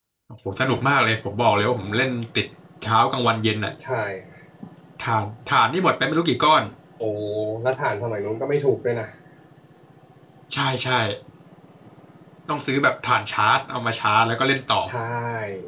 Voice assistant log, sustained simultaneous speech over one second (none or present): none